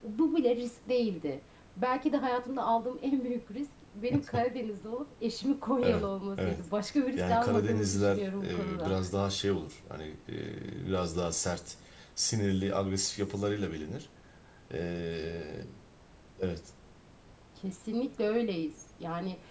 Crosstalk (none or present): present